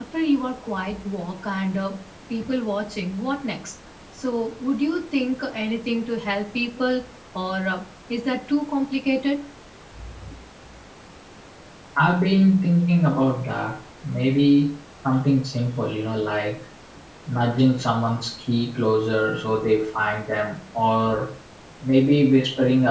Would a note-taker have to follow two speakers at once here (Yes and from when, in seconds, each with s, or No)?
No